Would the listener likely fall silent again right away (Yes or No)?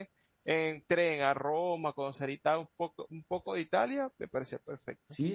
No